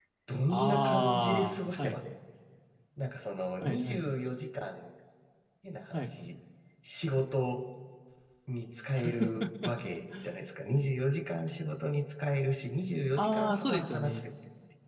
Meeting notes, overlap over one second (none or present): present